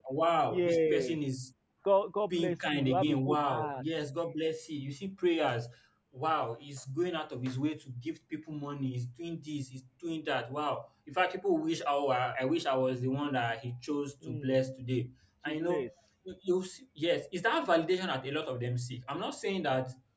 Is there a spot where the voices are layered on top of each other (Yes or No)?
Yes